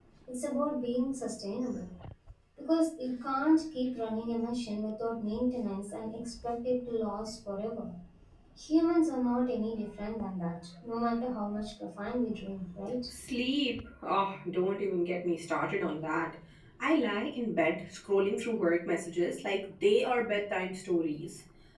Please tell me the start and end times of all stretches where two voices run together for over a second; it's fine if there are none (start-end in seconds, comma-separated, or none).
none